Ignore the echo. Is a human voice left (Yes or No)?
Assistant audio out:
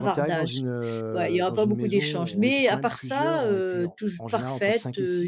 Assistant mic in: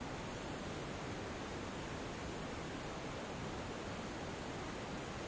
No